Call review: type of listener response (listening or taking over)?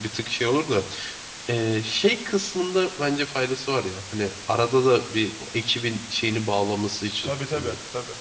taking over